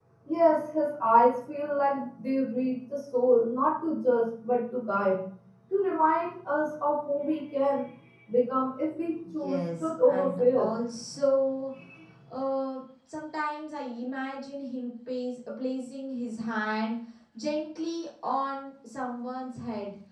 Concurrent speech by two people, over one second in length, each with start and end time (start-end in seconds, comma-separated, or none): 9.4-10.7